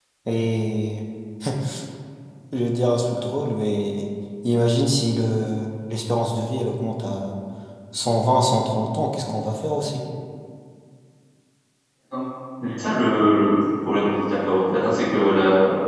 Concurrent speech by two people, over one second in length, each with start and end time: none

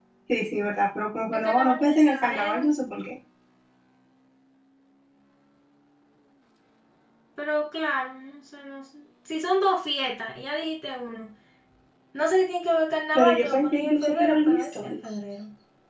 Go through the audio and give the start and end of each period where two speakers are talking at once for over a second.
1.3-2.7, 13.2-14.9

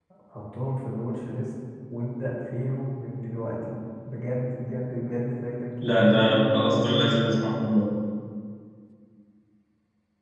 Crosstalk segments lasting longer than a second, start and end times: 6.0-7.5

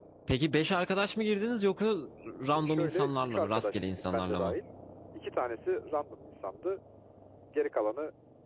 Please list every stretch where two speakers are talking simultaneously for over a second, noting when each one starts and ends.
2.5-4.5

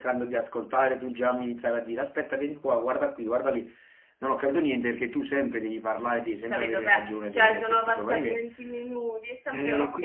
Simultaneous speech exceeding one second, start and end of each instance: 6.5-8.4

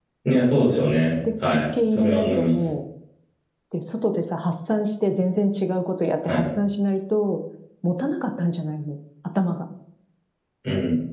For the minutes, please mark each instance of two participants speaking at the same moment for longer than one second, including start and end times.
1.4-2.6

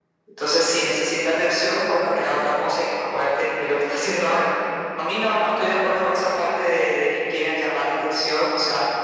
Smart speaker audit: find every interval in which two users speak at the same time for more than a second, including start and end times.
none

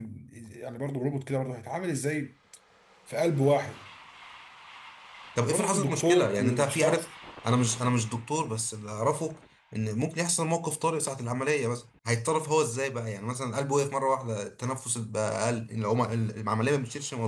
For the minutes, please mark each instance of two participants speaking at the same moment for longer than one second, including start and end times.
5.5-7.1

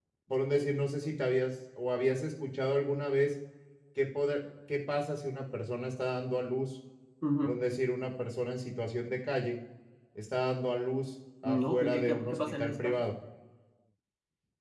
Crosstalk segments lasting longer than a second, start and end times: 11.4-13.0

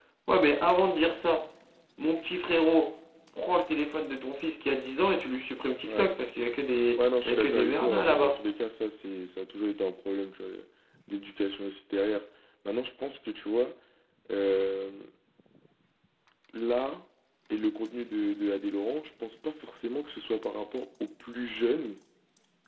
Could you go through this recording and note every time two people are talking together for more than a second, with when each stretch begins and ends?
7.0-8.4

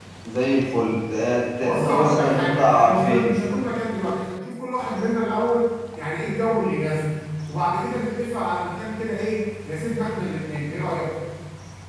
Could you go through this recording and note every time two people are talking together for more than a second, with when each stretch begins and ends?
1.6-3.3

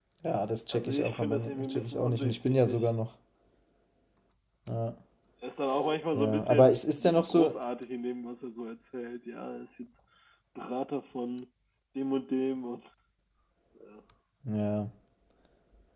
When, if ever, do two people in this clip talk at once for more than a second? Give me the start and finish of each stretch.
0.7-2.8, 6.1-7.6

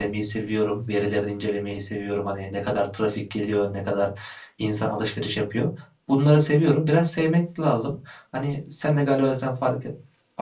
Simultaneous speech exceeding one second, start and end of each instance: none

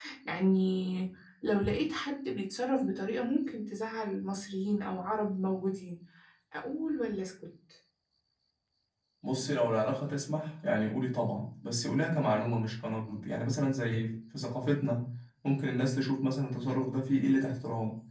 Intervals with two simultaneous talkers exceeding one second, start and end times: none

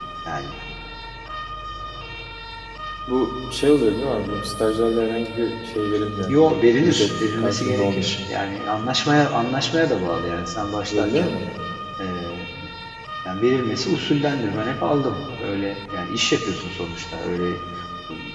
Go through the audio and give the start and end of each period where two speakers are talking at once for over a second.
6.8-8.1

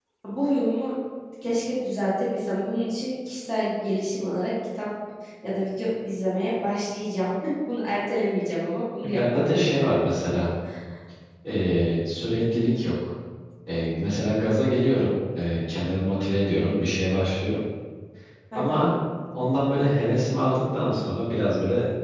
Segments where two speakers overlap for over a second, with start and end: 9.0-10.4

